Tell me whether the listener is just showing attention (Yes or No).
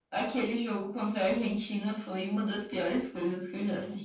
Yes